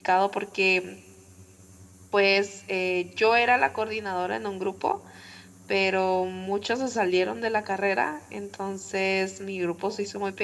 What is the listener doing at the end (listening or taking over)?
listening